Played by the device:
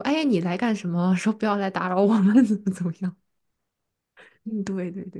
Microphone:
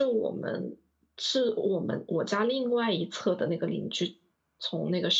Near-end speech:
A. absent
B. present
B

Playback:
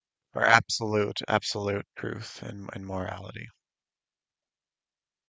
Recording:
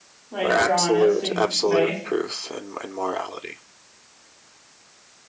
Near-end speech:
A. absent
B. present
B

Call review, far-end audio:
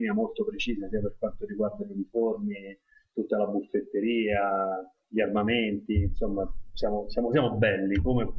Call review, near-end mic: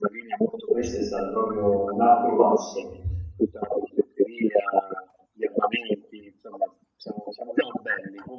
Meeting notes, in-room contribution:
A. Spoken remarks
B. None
A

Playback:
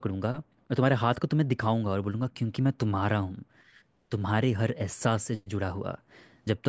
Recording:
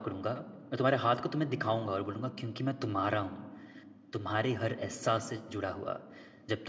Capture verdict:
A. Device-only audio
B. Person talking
A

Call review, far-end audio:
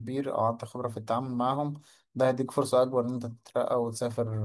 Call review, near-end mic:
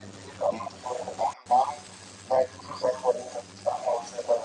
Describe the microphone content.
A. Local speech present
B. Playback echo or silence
B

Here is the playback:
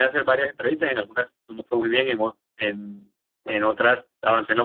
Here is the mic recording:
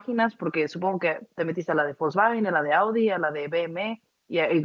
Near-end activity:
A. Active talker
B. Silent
A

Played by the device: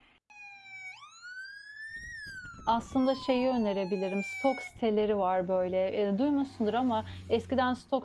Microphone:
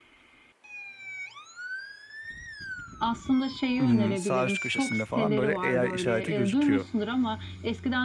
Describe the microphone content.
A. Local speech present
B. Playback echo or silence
A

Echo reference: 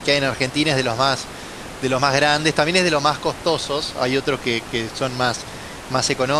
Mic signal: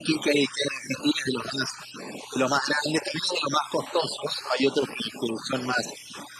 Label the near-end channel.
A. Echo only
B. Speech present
A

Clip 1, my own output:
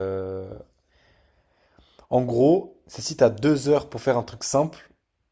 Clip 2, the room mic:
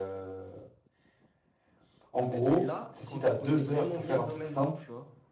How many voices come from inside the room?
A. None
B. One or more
B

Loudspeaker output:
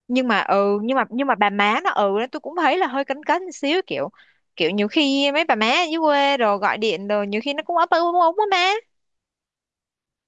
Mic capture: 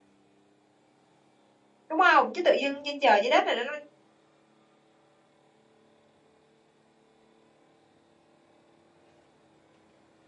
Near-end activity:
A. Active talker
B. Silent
A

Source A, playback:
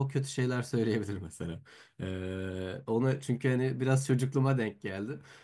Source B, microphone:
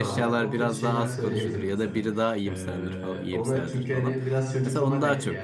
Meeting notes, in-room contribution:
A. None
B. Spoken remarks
B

